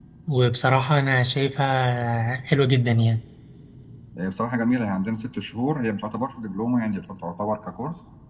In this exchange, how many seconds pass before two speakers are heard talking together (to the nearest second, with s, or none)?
none